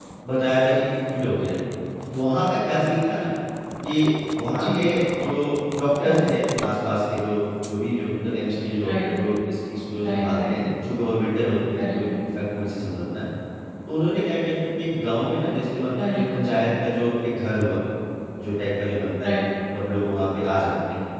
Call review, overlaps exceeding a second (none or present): none